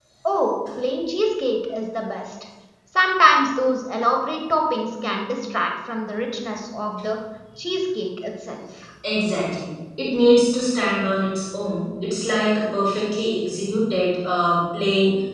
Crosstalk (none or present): none